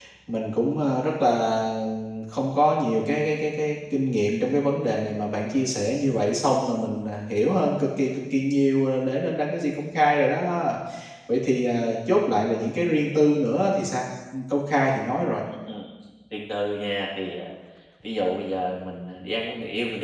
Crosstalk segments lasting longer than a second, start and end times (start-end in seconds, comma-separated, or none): none